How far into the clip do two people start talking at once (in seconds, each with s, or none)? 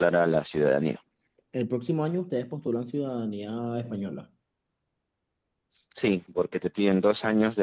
none